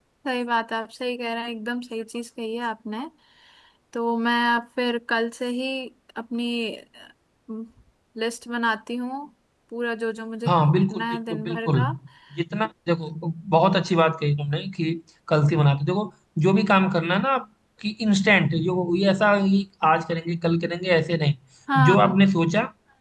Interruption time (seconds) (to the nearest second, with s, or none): 10 s